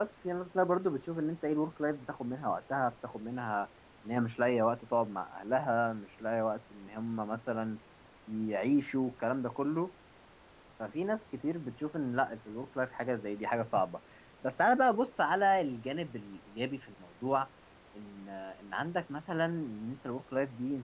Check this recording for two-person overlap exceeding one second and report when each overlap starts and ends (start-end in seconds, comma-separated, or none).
none